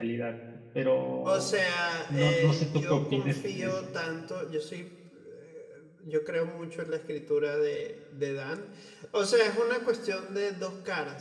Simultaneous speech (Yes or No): Yes